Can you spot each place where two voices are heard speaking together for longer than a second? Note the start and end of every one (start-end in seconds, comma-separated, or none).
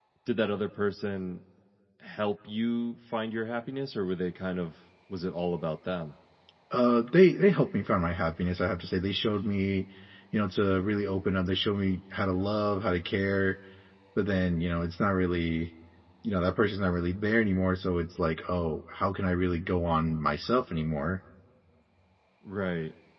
none